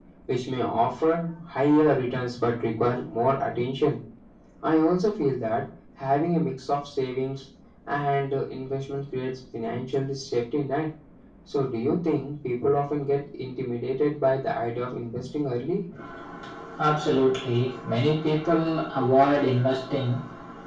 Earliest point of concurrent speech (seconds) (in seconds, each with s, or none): none